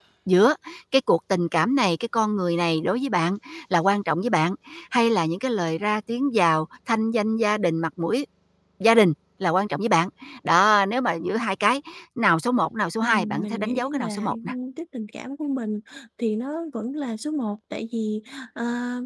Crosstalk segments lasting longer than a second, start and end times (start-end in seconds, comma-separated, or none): 13.0-14.3